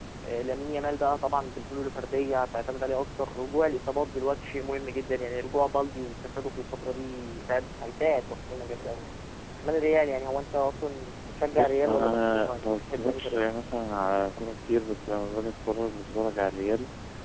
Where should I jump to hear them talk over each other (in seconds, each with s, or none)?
11.5 s